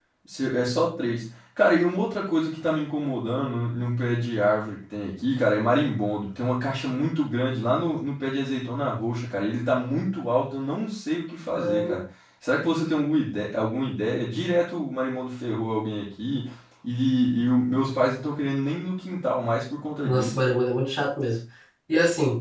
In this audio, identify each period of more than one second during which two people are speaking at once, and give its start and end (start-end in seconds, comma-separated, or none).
none